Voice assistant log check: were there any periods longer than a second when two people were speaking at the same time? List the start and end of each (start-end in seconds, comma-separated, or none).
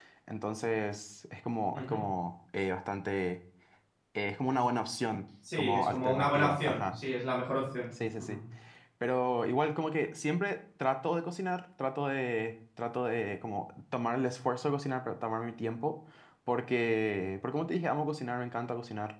5.6-7.0